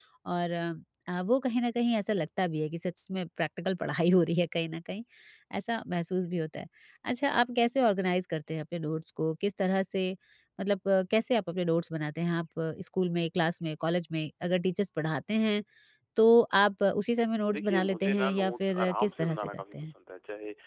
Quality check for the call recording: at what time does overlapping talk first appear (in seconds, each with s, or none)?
17.5 s